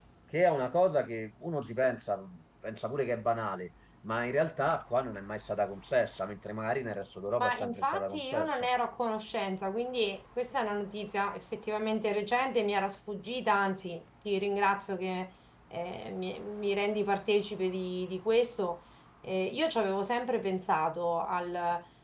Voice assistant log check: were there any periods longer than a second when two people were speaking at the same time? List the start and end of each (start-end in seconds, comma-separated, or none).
7.4-8.7